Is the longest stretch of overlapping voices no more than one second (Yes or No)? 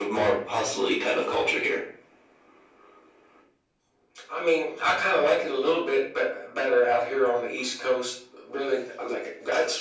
Yes